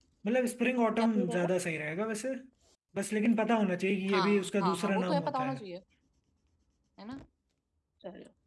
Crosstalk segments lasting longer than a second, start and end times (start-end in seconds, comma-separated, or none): 4.1-5.6